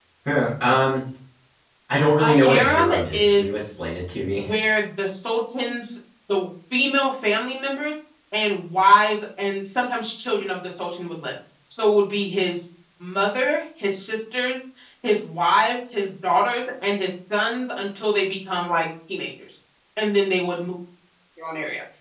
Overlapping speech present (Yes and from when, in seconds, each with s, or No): Yes, from 2.2 s